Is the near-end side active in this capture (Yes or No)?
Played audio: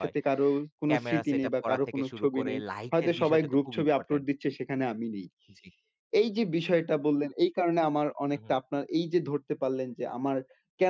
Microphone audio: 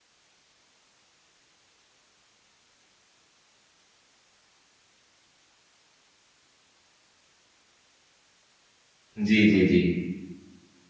Yes